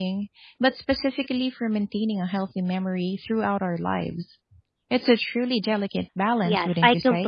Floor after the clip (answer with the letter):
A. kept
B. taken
B